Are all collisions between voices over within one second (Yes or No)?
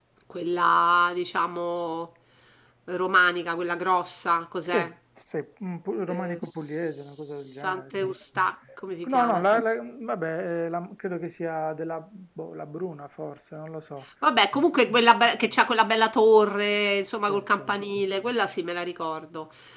No